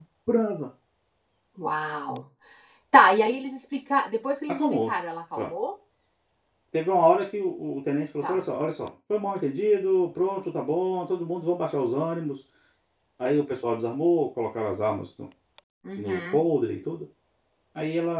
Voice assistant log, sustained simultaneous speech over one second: none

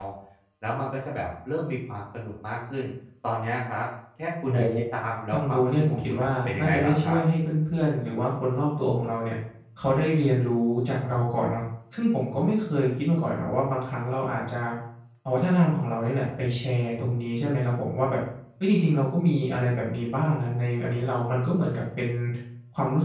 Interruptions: present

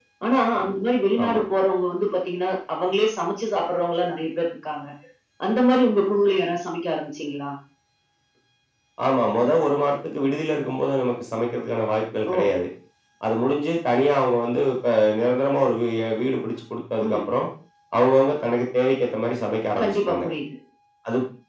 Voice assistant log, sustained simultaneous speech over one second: none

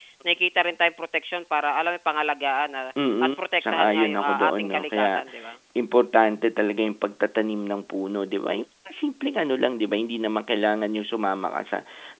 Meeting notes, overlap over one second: present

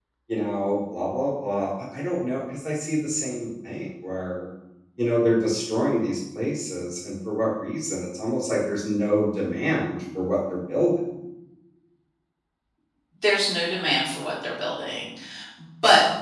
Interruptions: none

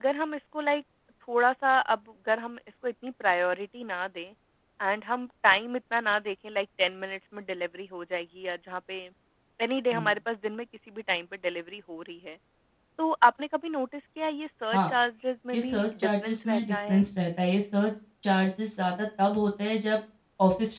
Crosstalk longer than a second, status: present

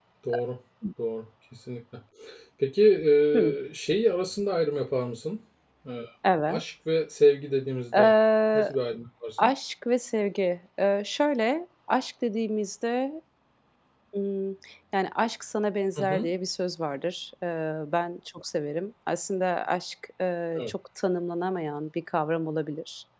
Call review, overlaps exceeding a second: none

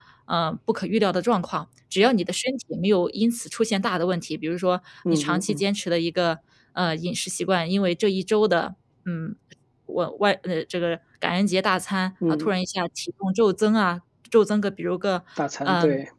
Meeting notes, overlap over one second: none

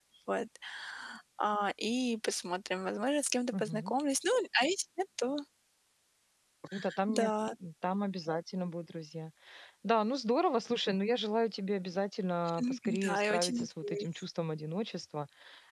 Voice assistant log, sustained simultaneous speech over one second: present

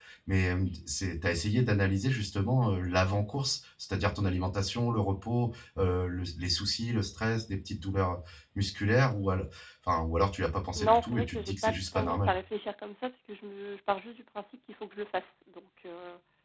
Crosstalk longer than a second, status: present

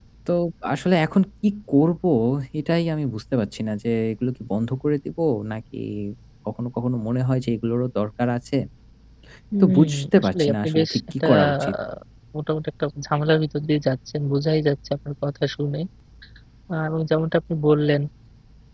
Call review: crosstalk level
present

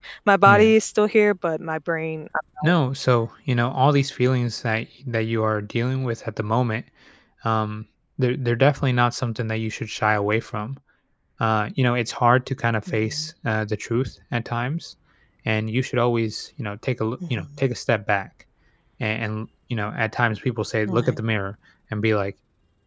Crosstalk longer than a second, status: none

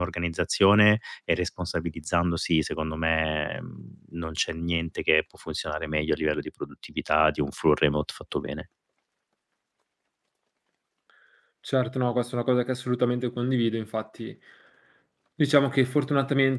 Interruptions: none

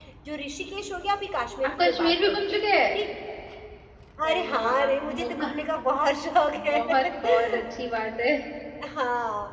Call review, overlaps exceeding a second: present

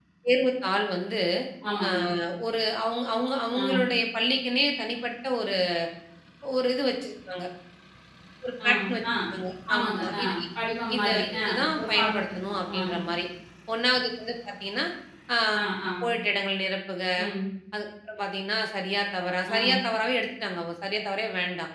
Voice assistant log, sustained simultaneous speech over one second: present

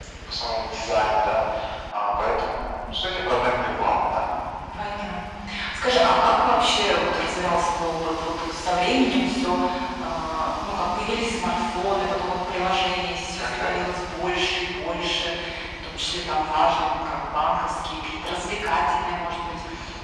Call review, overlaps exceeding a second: none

